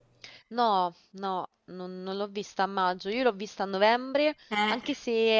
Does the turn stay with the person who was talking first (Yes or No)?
Yes